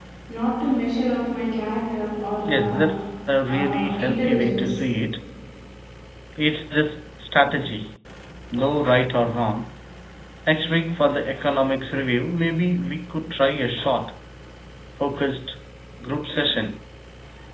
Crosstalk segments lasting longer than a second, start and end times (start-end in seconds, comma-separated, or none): 3.5-4.7